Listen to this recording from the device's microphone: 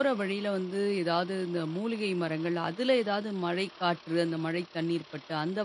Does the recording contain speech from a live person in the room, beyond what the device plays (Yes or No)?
Yes